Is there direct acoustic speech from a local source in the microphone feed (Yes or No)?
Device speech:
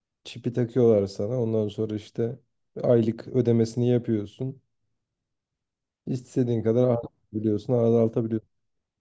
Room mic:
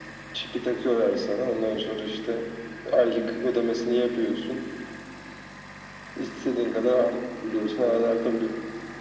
No